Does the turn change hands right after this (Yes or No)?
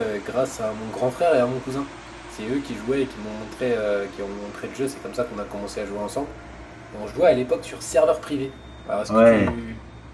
Yes